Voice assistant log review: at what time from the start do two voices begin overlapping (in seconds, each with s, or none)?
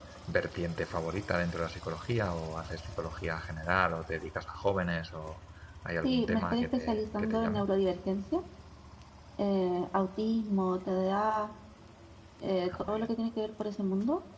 6.0 s